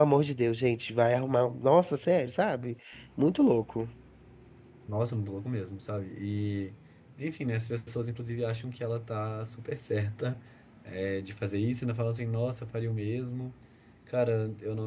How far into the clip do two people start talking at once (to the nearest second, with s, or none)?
none